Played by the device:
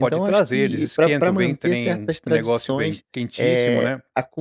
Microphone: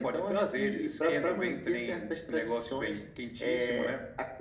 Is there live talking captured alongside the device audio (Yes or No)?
No